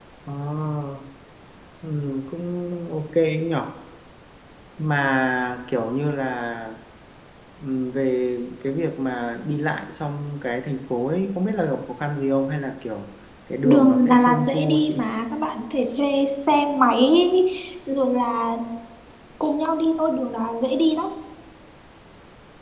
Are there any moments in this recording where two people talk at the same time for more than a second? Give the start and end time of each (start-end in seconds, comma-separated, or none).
13.6-15.0